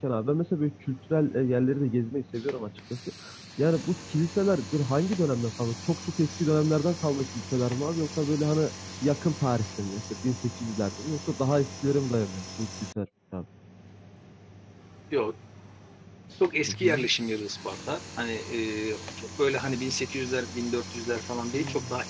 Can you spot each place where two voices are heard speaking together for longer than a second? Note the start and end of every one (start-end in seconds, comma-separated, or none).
none